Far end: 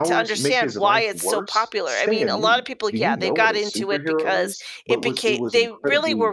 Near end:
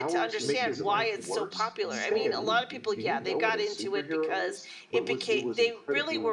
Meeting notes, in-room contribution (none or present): present